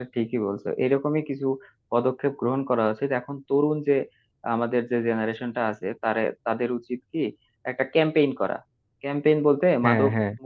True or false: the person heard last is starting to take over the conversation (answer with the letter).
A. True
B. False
B